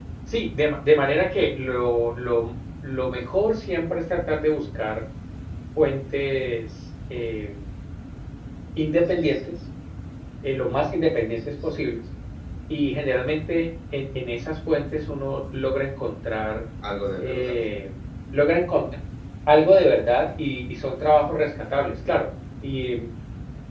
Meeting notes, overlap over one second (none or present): none